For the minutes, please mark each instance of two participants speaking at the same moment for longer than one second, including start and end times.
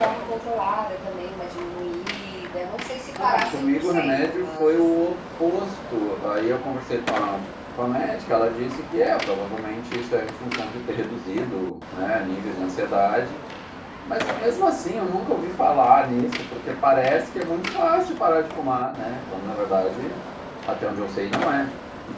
3.2-4.8

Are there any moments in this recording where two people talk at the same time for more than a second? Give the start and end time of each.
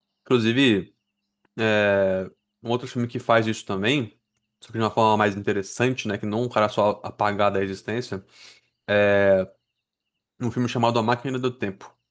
none

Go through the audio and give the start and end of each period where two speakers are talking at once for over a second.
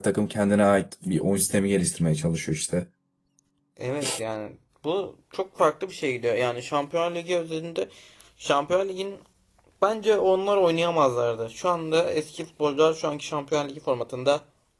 none

